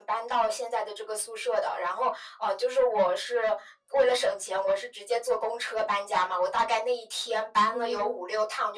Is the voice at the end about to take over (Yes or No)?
No